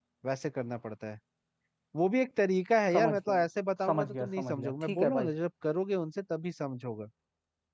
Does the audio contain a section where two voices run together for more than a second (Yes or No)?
Yes